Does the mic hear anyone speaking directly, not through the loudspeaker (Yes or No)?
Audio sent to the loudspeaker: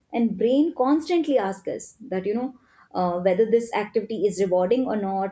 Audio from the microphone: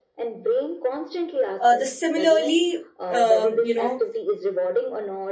Yes